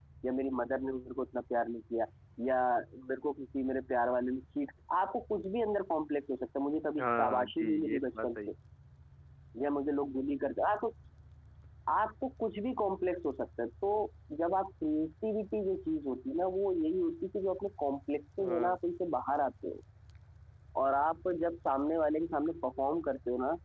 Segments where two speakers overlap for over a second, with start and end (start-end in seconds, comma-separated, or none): 7.0-8.4